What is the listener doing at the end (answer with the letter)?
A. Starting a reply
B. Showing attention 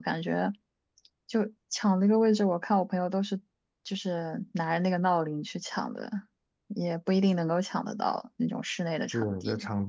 A